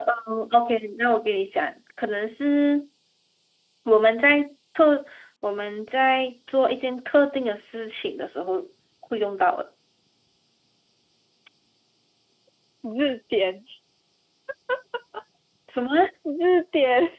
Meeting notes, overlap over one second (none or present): none